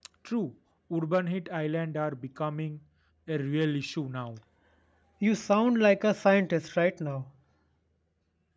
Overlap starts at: none

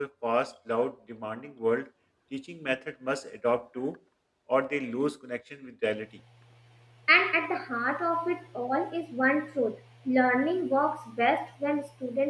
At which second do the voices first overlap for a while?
none

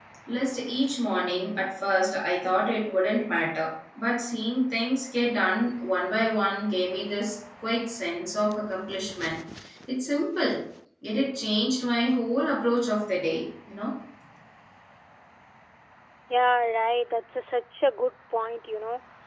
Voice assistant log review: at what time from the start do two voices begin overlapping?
none

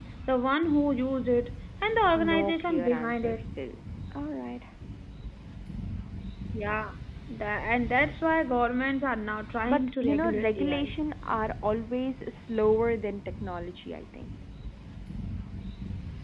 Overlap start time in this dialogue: 2.1 s

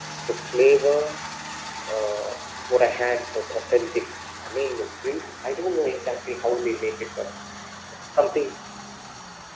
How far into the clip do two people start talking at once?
none

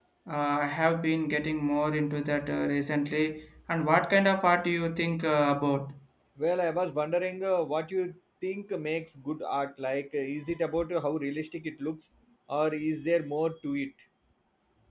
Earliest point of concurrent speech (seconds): none

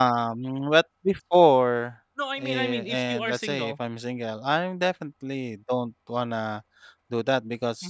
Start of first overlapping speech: 2.2 s

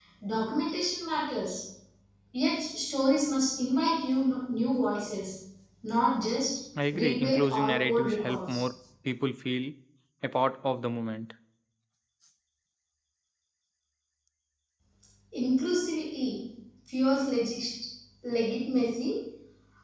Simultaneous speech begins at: 6.8 s

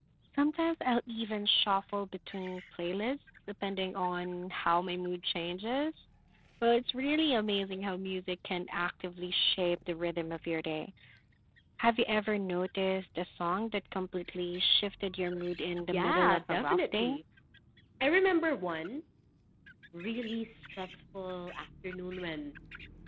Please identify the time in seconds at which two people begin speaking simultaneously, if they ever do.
15.8 s

